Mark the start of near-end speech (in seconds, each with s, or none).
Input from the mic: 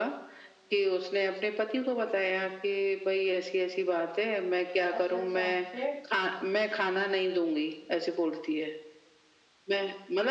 5.0 s